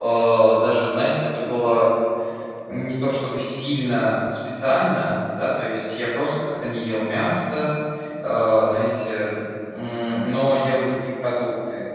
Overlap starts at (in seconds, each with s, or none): none